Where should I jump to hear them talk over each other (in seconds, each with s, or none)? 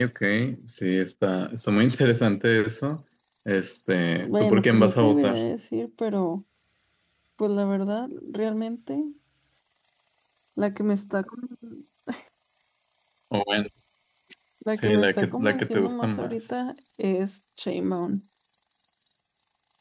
4.2 s